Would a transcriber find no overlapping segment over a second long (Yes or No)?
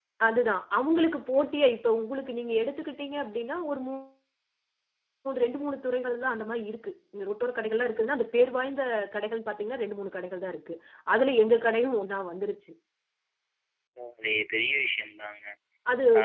Yes